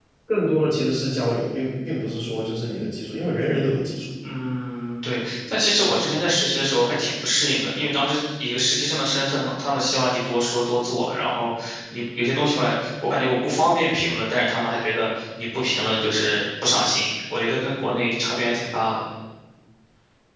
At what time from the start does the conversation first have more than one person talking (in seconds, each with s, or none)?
none